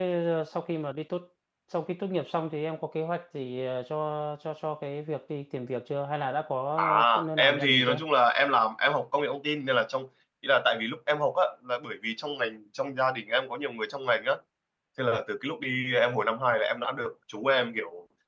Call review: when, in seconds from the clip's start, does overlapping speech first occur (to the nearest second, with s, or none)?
7 s